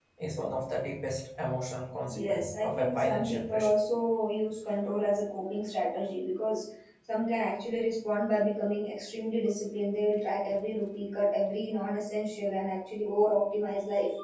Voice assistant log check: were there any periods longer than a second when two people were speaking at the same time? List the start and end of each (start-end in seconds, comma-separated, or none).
2.1-3.7